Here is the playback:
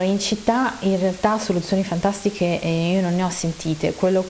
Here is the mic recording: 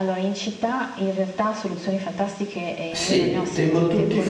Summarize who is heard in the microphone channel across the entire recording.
both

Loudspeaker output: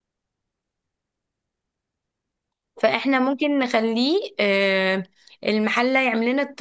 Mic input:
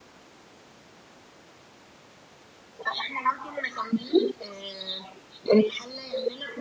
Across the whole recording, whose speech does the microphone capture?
echo only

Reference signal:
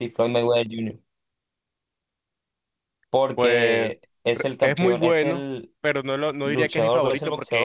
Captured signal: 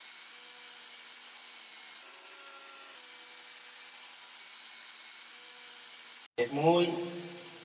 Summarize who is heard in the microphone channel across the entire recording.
user only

